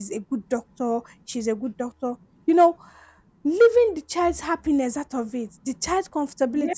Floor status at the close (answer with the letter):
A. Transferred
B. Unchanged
B